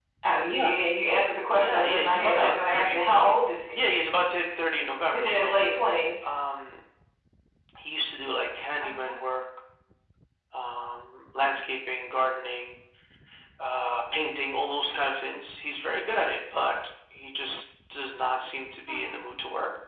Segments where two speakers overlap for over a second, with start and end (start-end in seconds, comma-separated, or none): 1.6-3.0